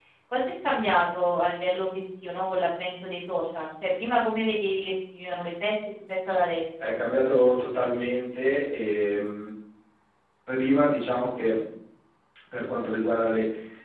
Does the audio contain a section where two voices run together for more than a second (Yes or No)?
No